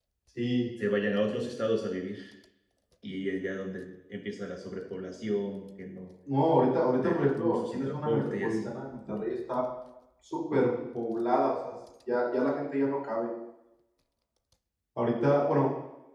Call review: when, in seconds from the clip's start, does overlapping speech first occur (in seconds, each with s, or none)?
7.0 s